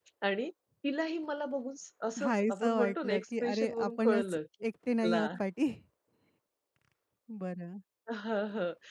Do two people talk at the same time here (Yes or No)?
Yes